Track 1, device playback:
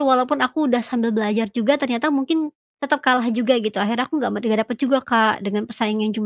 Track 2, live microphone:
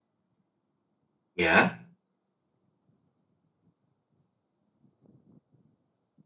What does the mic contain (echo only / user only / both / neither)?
user only